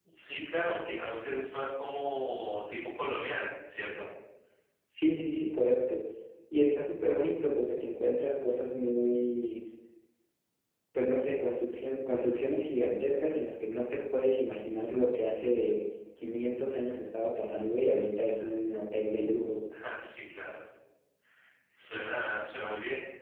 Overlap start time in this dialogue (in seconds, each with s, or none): none